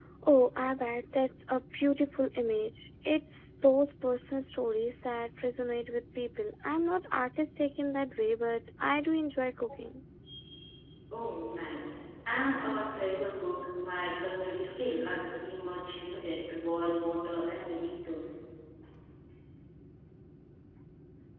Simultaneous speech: No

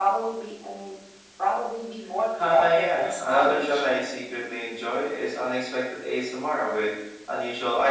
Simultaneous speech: Yes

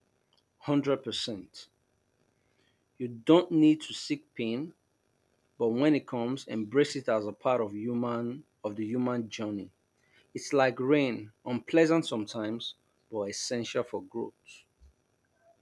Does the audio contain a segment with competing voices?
No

